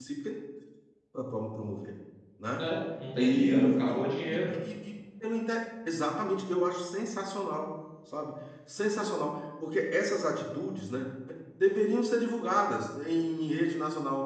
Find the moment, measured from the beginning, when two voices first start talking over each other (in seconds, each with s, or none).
3.2 s